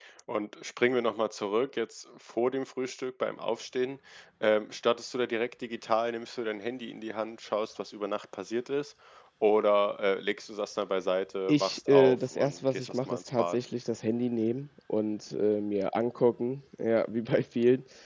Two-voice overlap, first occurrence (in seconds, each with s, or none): 11.5 s